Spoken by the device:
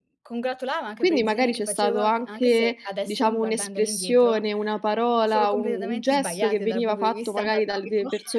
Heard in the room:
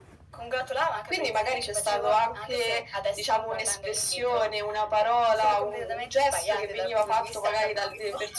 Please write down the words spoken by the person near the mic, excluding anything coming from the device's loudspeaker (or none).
none